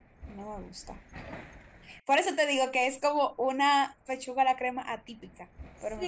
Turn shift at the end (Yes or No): Yes